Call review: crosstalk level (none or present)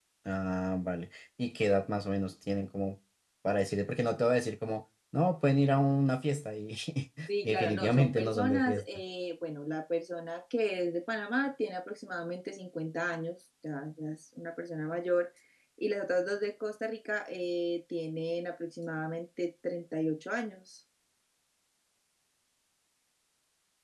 present